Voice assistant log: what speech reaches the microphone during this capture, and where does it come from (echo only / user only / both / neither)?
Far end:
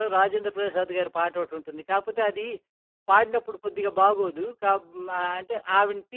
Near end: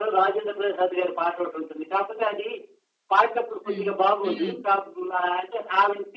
both